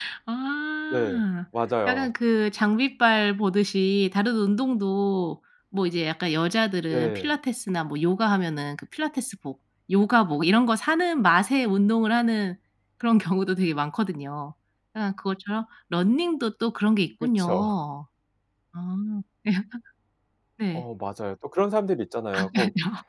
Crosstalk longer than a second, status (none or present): none